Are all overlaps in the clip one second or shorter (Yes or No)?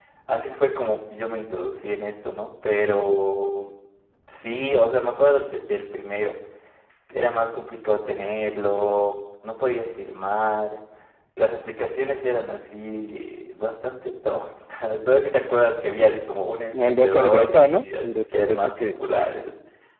No